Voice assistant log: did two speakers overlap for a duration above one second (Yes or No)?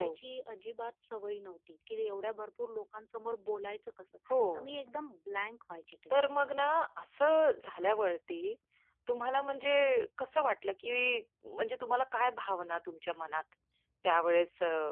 No